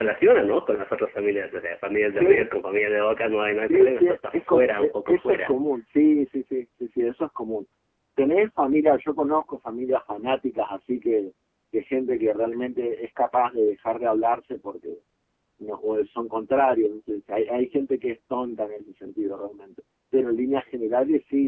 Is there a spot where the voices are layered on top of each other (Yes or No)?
Yes